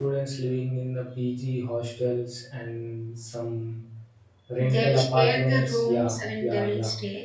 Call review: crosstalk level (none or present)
present